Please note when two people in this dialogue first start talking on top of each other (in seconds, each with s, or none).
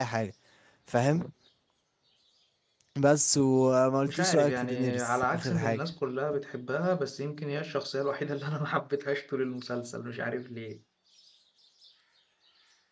4.1 s